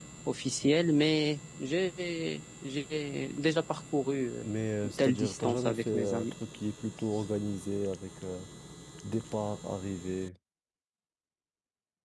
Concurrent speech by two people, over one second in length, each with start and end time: 4.8-6.3

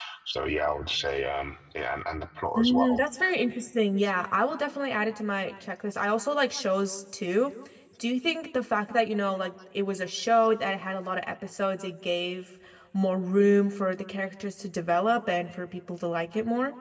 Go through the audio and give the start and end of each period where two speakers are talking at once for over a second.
none

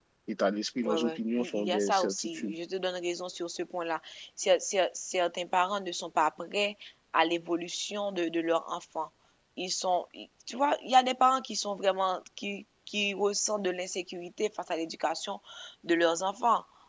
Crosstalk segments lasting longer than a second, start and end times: 0.8-2.5

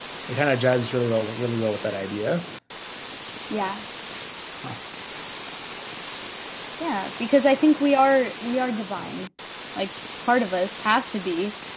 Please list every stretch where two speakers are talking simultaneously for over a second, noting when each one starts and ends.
none

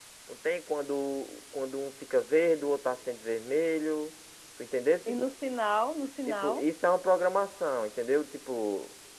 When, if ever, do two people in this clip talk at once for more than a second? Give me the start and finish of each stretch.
none

